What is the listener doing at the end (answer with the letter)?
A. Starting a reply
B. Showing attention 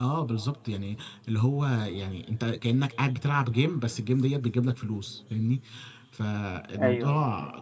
B